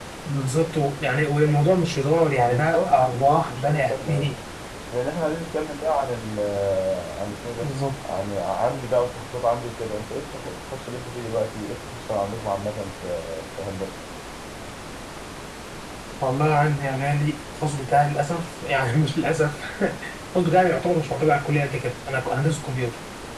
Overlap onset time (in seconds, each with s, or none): 2.5 s